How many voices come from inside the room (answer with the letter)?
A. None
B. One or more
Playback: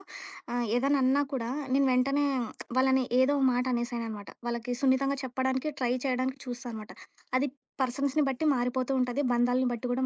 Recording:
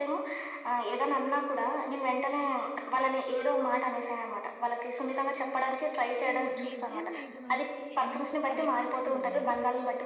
B